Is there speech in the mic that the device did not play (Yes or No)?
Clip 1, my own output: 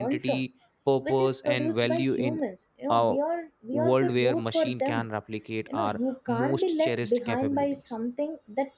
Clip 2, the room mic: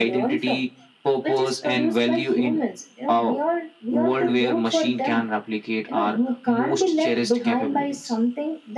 No